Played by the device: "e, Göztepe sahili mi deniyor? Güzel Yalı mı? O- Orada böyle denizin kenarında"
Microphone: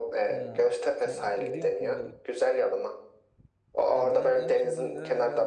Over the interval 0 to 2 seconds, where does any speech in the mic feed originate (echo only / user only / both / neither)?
both